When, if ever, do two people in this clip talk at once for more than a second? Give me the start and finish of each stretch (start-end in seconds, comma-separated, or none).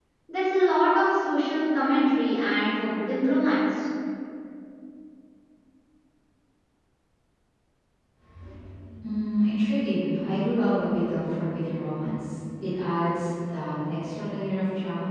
none